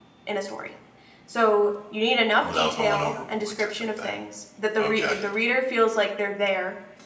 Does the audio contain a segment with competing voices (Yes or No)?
Yes